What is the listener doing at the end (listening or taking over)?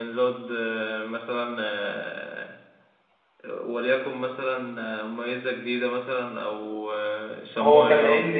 taking over